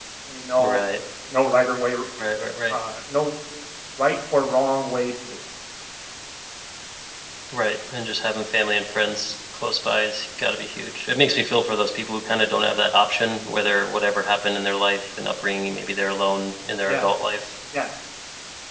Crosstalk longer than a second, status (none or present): none